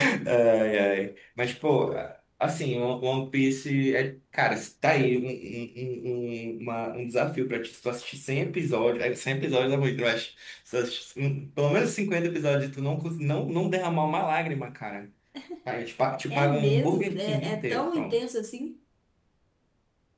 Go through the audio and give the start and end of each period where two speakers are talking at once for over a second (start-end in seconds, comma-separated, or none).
16.3-18.2